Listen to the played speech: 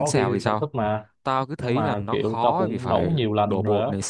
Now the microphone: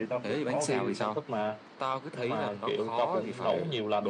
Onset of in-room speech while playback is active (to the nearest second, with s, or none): none